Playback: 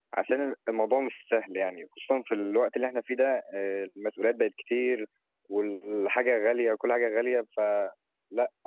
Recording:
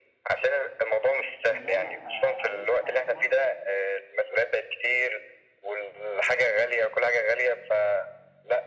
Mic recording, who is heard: both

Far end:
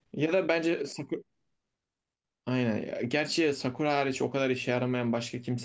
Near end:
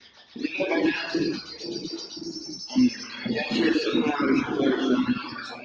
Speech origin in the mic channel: echo only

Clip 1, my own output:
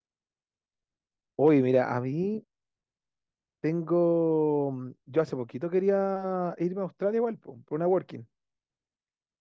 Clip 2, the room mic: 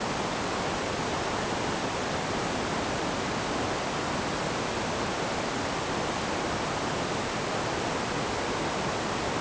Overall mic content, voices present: neither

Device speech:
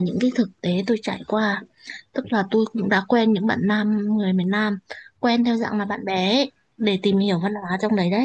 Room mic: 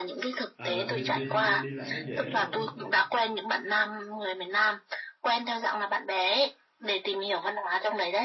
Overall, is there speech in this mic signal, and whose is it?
both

